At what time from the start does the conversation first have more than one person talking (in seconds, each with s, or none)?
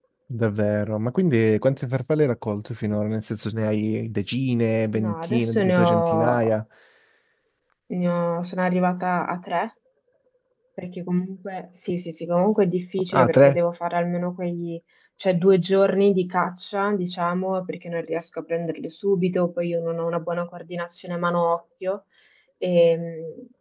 4.9 s